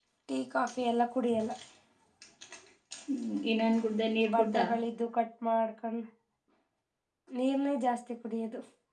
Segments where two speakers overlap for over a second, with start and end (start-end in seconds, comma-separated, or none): none